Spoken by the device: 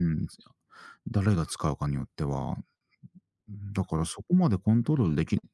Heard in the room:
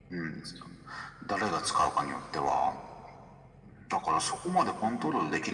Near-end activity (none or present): none